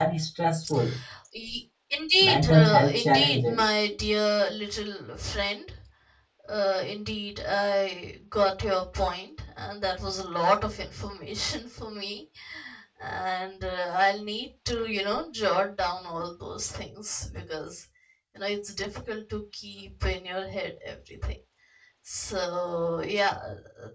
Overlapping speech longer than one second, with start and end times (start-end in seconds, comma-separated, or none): 2.2-3.6